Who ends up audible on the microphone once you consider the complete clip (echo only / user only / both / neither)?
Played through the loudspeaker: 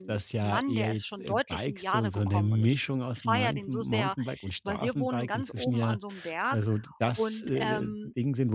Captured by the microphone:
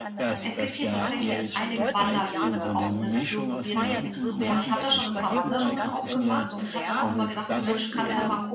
both